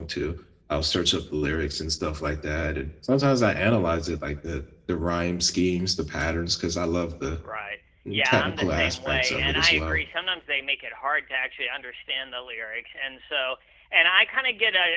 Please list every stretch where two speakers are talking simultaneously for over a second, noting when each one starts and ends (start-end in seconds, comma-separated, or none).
8.1-10.0